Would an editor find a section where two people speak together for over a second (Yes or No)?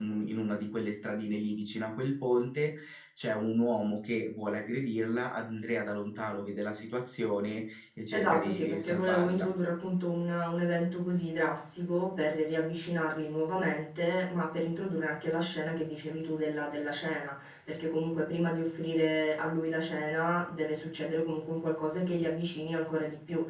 Yes